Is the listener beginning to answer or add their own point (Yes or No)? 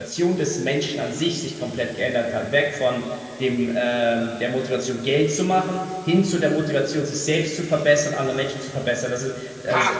Yes